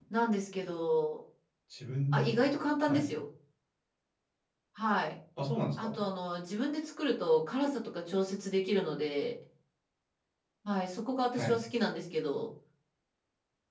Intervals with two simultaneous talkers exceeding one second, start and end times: none

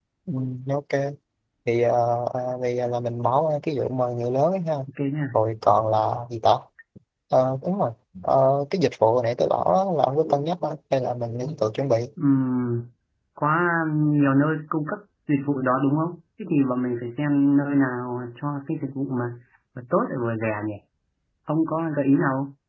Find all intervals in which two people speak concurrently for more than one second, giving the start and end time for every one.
none

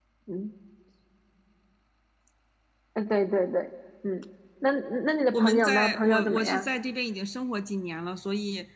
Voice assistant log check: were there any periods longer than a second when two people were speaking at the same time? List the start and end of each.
5.3-6.7

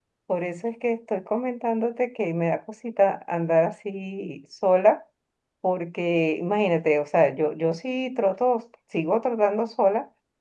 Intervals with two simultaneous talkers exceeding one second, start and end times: none

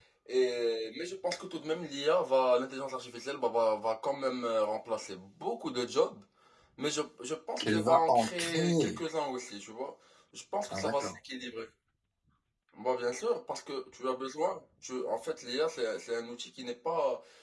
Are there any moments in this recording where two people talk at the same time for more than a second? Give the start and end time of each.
7.6-9.0

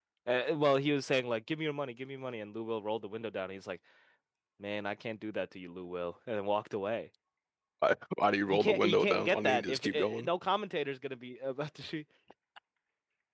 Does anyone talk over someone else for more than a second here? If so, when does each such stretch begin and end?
8.5-10.3

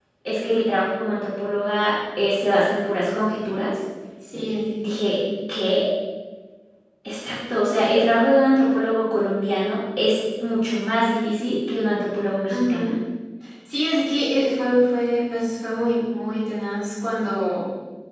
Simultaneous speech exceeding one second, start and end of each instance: none

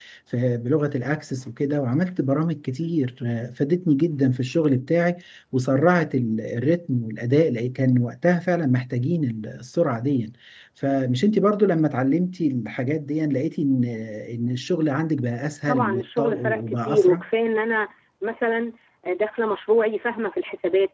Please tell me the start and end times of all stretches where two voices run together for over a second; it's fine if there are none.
15.7-17.2

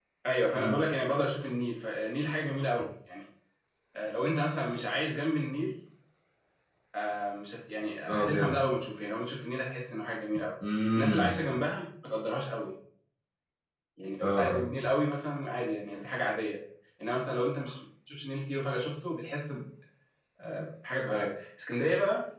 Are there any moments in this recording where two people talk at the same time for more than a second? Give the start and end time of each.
none

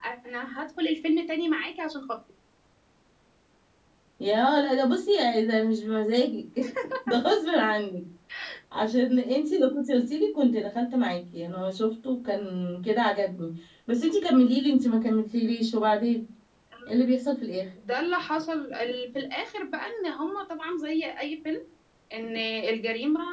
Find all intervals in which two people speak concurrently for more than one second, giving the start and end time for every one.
none

